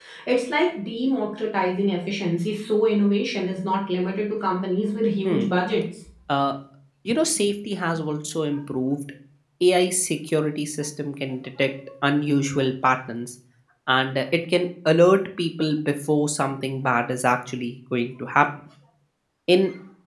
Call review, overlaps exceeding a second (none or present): none